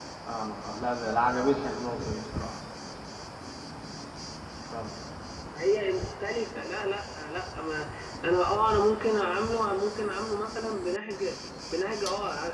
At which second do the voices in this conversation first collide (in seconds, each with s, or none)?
none